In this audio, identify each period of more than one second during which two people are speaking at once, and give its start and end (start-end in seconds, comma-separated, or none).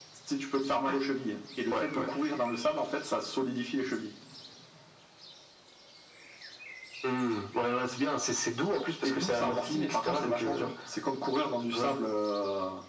9.0-10.7